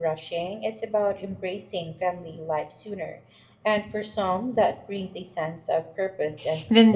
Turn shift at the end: Yes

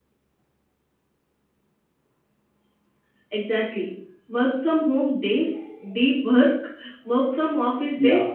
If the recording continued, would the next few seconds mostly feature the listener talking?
Yes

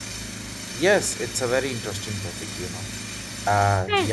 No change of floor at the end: Yes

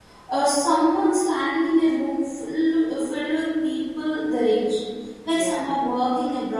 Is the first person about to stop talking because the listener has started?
No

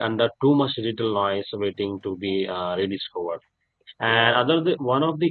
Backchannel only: Yes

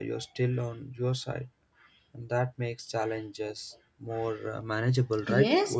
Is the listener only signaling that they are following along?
No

